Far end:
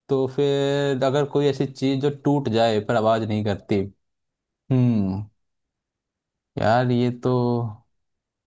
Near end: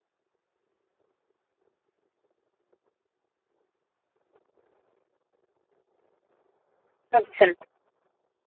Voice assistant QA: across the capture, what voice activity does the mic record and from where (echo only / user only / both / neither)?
user only